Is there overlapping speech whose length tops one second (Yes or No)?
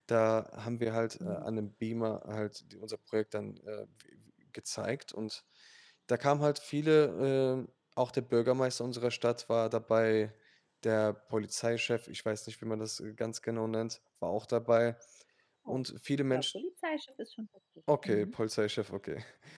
No